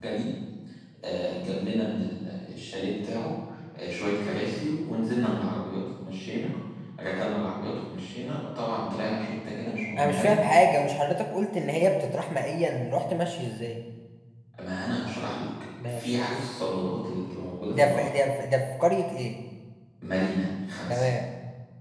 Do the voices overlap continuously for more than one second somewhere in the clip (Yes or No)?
No